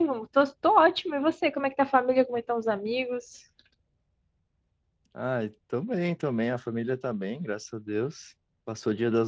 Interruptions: none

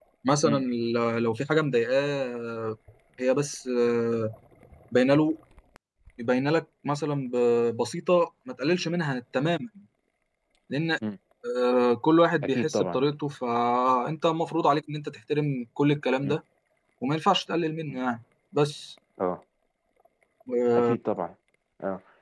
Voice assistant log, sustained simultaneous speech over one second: none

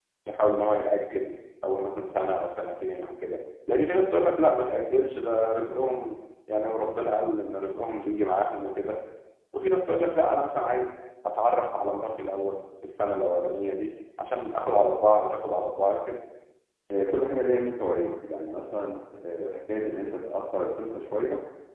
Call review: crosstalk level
none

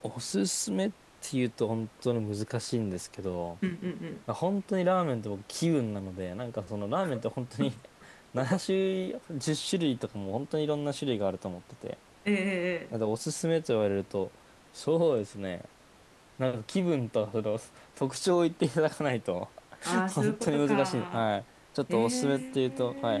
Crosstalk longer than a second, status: present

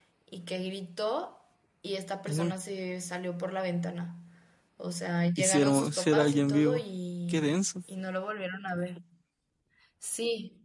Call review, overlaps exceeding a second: present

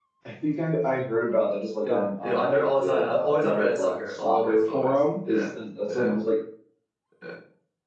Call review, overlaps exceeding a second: present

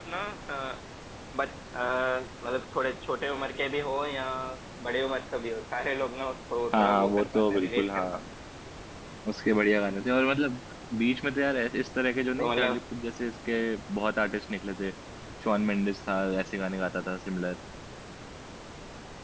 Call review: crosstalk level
present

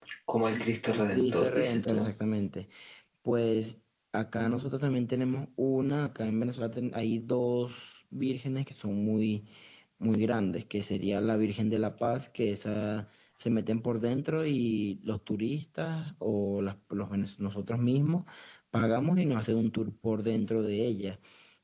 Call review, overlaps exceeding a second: present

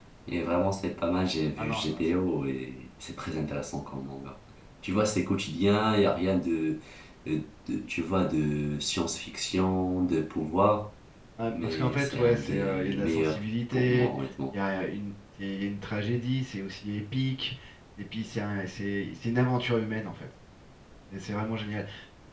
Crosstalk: present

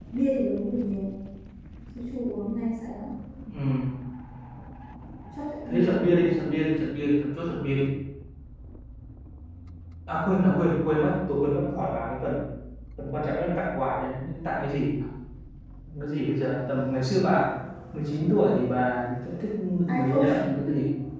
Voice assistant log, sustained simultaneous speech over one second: none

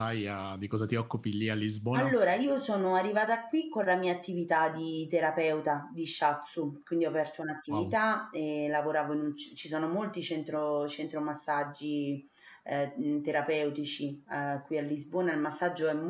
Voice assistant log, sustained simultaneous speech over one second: none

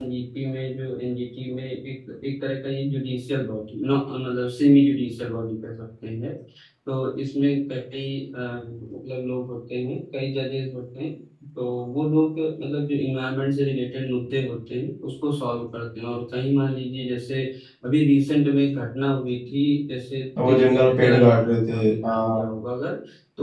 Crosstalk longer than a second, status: present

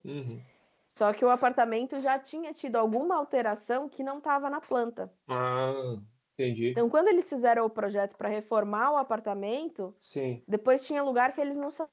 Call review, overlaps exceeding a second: none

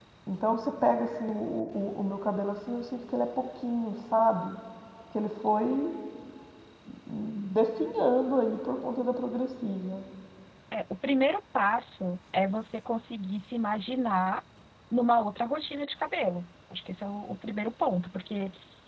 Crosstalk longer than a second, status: none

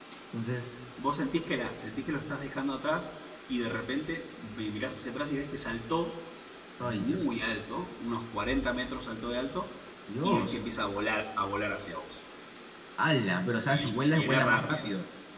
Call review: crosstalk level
present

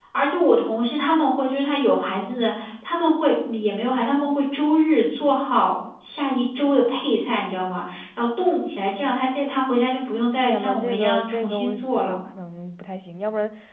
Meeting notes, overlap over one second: present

